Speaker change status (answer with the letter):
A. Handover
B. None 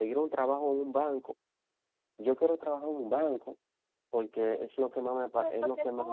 A